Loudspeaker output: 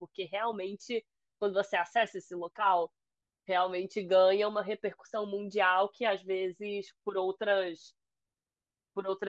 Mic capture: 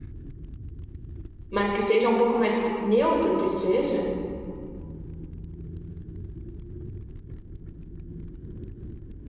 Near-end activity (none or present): present